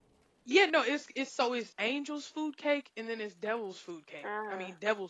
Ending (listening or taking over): listening